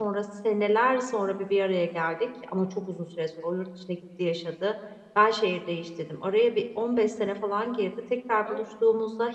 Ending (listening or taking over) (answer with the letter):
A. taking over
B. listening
B